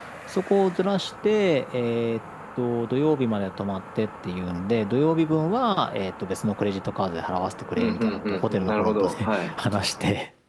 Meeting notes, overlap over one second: present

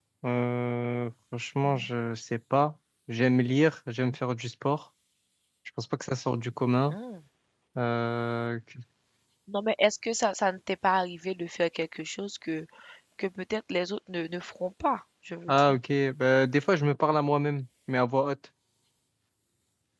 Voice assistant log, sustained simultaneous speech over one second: none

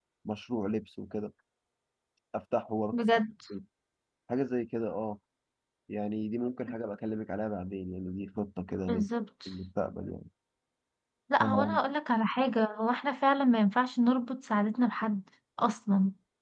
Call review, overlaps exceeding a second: none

